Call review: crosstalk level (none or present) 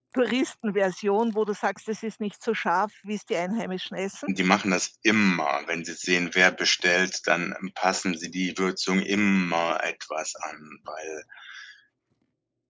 none